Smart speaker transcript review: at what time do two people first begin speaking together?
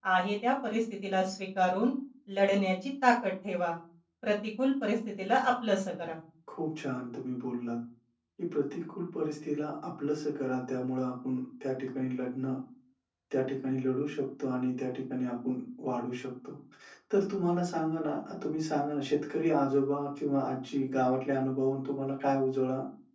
none

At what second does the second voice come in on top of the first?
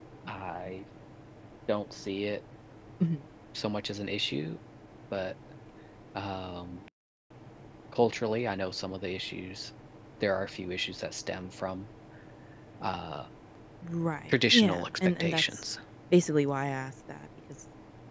14 s

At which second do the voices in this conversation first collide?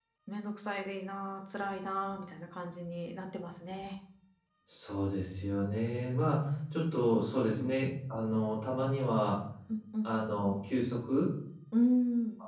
none

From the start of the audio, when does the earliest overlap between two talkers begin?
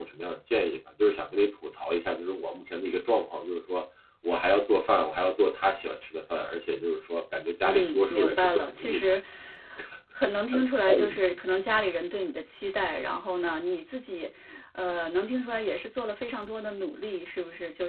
8 s

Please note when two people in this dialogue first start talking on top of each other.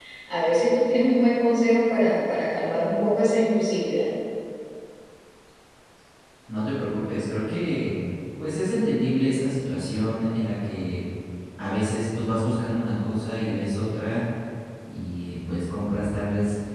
none

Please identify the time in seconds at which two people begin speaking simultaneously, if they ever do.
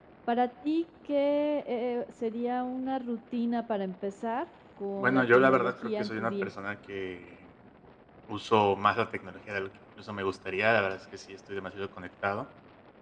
5 s

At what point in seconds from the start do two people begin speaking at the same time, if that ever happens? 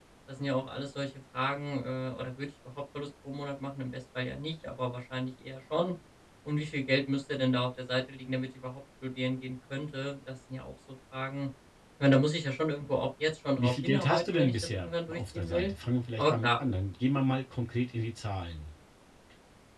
14 s

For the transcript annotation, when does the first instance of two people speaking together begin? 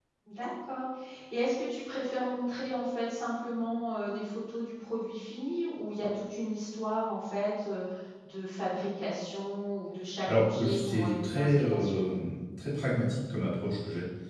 10 s

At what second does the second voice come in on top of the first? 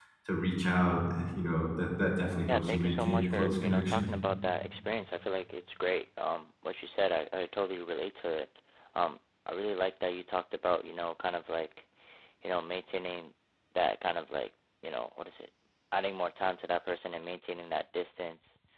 2 s

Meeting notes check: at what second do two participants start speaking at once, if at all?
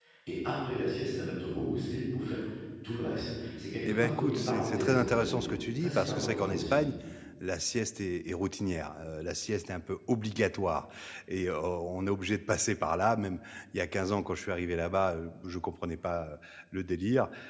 4 s

